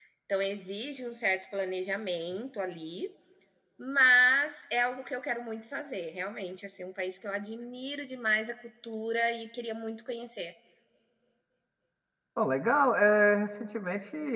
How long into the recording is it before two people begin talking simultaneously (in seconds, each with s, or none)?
none